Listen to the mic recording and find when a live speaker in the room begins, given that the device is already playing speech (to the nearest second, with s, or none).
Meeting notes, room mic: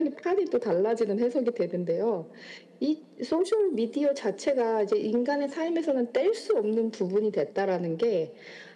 none